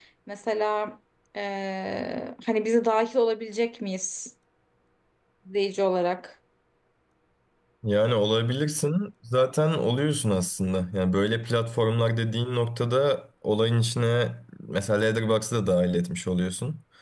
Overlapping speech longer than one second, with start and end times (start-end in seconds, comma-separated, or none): none